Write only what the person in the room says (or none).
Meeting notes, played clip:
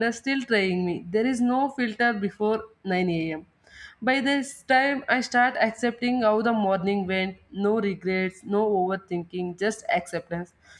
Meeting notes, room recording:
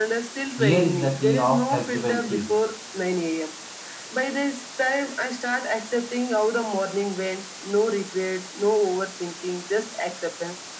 here is the key of flexibility